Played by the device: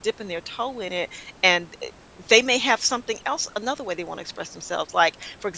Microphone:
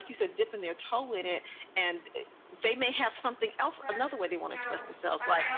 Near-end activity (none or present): present